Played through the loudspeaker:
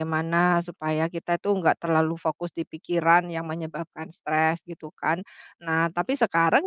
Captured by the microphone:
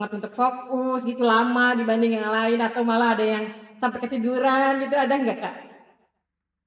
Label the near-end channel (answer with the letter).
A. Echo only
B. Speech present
B